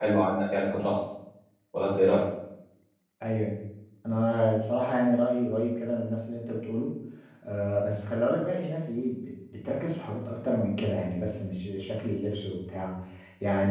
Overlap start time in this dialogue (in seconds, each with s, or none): none